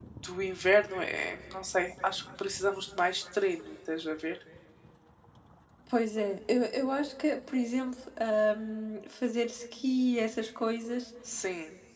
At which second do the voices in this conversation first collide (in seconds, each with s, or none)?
none